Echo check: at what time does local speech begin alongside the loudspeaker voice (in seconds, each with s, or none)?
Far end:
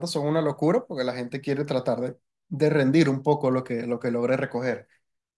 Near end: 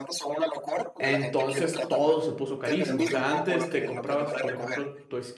1.0 s